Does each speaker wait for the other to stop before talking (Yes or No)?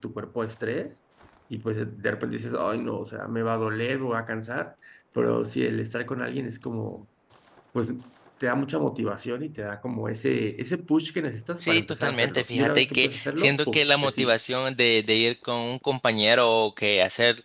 No